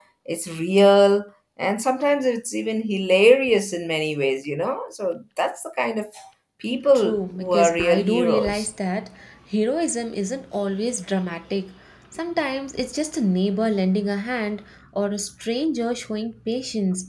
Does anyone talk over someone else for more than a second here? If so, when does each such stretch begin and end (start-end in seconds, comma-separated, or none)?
7.0-8.7